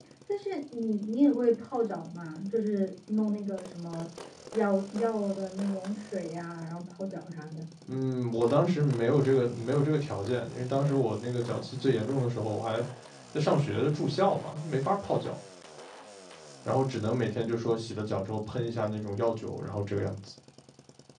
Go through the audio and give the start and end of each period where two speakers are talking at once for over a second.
none

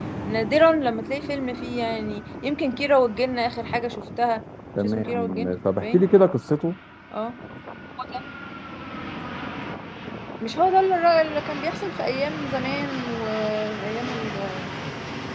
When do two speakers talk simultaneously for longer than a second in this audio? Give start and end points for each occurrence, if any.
4.8-6.0

